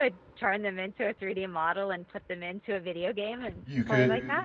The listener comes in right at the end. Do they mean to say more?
Yes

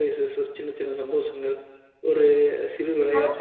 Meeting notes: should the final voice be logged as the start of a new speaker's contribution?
No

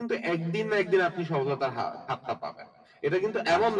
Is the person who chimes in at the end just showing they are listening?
Yes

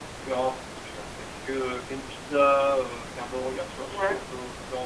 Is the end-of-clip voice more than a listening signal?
No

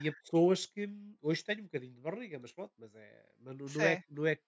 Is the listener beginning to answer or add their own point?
No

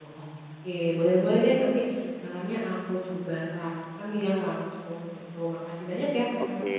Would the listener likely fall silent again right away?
No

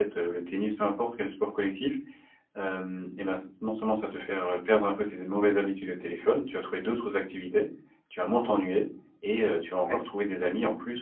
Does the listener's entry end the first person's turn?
No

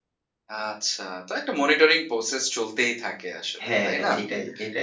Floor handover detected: Yes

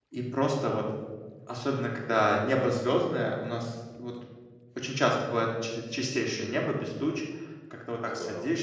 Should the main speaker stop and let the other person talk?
No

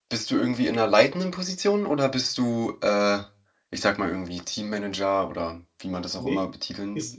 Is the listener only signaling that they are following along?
No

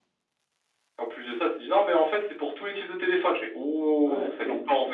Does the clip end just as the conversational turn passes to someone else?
Yes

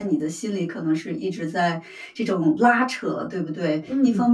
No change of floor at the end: Yes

